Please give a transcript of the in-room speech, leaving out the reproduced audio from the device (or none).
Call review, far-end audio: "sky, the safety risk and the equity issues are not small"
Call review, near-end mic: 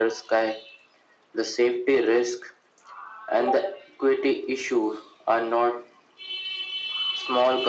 none